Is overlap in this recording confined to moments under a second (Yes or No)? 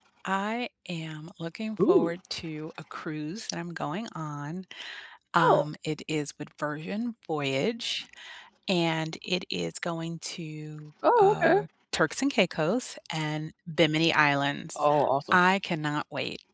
Yes